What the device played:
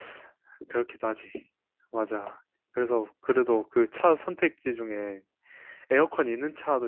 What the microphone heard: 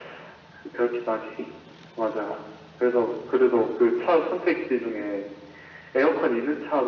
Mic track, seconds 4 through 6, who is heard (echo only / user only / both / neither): echo only